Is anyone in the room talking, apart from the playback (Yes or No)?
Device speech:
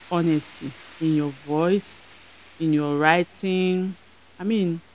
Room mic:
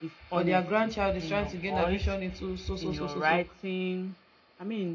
Yes